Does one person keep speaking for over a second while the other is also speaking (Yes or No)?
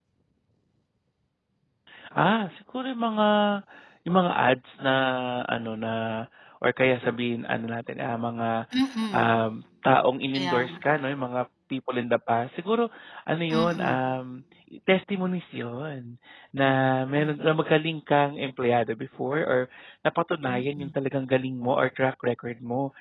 No